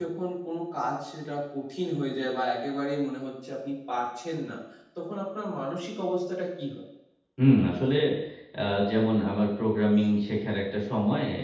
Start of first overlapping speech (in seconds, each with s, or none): none